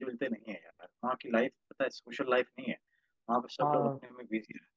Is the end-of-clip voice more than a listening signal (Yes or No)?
No